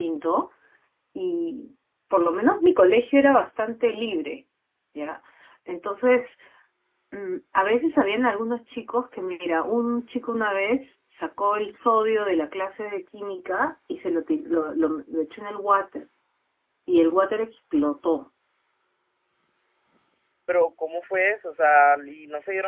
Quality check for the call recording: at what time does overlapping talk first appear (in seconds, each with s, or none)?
none